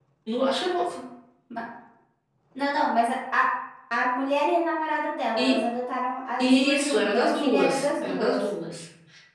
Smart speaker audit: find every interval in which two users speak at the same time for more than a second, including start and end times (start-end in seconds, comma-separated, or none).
6.4-8.4